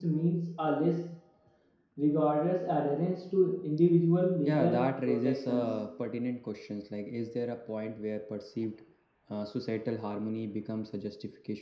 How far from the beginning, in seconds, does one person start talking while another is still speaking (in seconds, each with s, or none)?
4.5 s